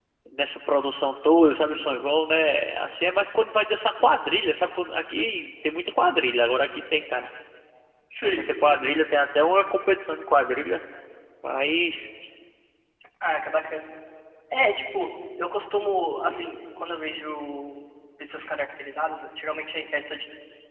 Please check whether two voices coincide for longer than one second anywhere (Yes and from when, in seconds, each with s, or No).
No